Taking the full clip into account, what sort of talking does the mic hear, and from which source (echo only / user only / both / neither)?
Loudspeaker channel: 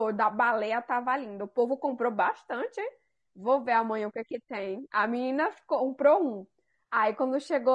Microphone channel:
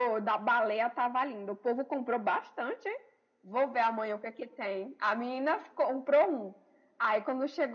echo only